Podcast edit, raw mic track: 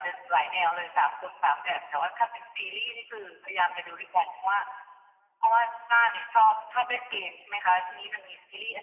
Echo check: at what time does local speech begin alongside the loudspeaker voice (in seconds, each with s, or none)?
none